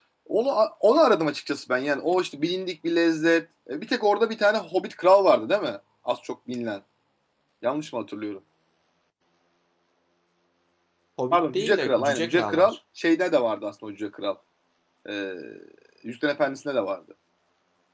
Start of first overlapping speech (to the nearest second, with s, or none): 11 s